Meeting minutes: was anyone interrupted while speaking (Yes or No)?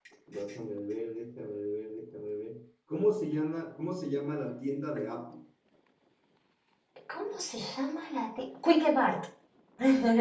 No